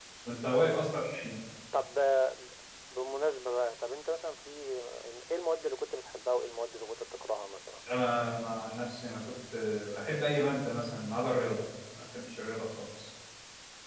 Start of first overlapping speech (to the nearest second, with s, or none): none